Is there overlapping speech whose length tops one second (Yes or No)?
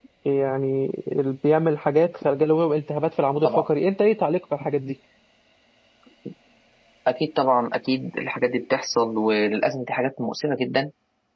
No